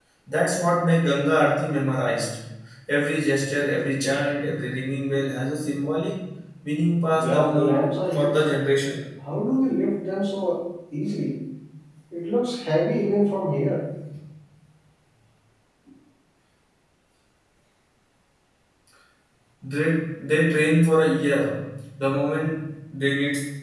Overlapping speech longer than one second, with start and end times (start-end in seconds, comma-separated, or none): 7.2-8.4